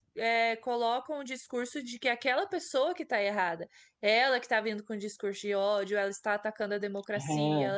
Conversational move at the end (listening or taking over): listening